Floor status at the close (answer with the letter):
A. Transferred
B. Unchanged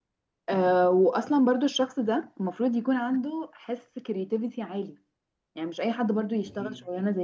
B